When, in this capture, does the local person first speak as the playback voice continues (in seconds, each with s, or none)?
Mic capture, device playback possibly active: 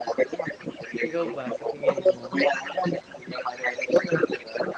1.1 s